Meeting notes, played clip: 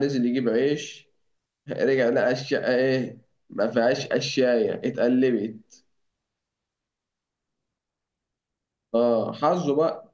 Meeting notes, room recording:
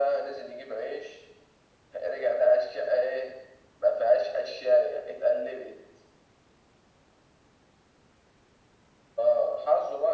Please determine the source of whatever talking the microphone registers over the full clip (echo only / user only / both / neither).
echo only